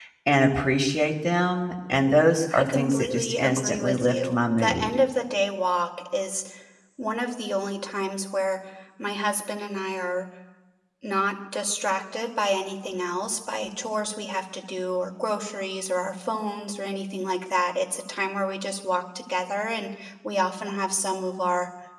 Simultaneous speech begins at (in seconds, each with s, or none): 2.5 s